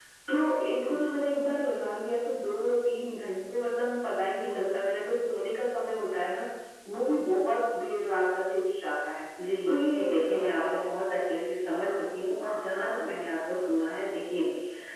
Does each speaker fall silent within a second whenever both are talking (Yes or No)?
No